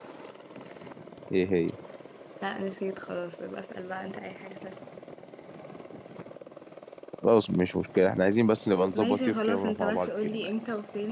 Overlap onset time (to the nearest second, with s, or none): 9 s